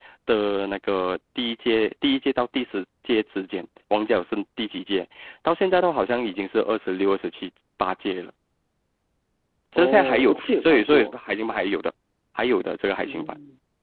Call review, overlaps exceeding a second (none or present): present